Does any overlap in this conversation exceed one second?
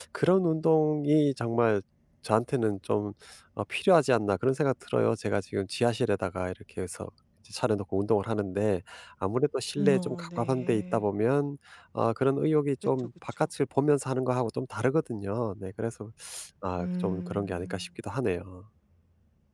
Yes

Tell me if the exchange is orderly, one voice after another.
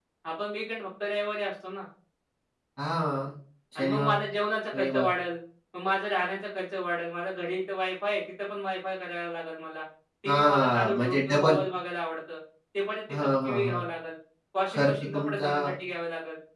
No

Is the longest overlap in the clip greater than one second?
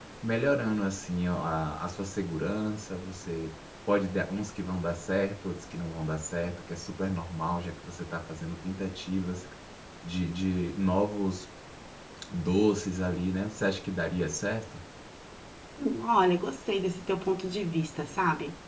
No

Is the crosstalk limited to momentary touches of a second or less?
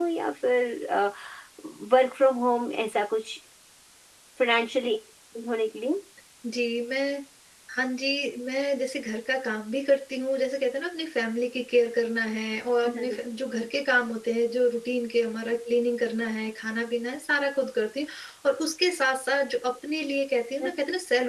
Yes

